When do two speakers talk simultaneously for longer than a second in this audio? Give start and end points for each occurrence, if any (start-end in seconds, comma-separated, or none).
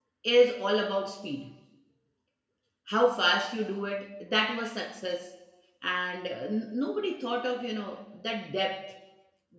none